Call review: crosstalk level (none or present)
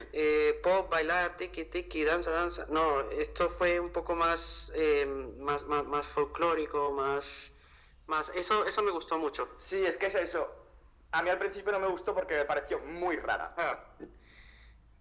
none